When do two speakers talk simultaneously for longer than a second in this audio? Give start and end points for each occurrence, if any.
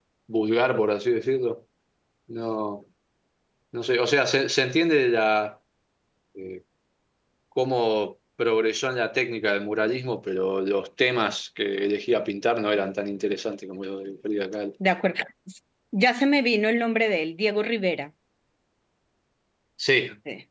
none

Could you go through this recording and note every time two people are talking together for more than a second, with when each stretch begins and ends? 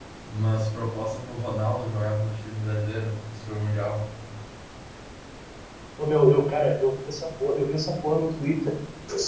none

